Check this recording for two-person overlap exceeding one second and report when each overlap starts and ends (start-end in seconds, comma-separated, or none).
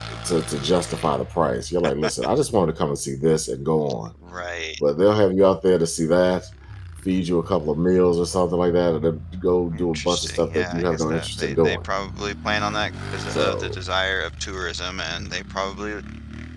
9.7-11.8